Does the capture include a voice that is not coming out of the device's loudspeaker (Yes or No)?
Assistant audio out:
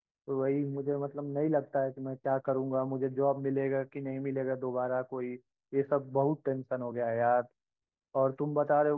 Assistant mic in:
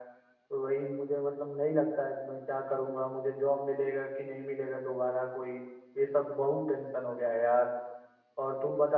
No